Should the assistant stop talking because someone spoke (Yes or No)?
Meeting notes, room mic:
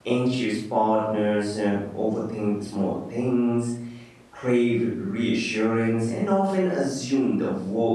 Yes